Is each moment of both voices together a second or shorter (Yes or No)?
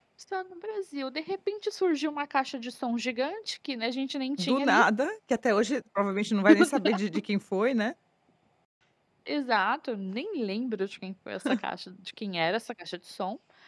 Yes